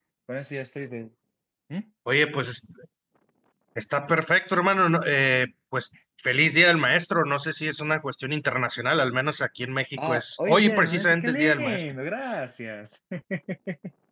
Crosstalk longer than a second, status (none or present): present